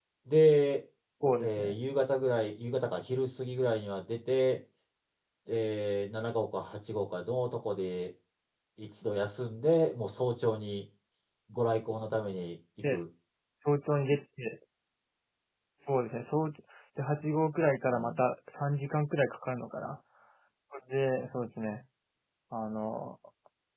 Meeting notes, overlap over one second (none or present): none